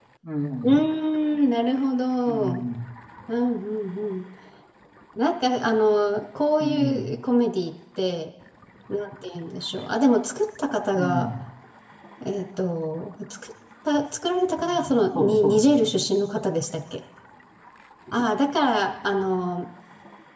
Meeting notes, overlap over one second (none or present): present